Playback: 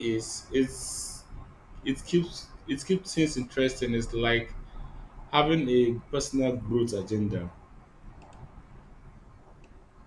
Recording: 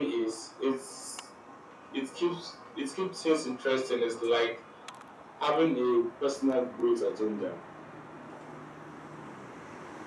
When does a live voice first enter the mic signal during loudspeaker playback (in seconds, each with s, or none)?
none